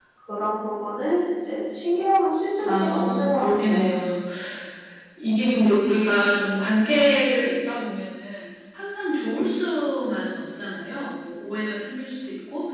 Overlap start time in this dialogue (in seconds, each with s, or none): 2.6 s